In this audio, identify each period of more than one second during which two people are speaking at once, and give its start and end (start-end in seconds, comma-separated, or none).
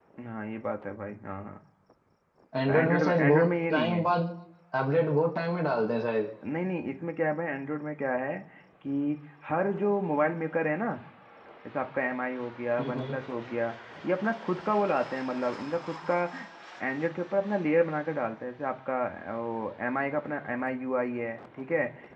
2.7-4.0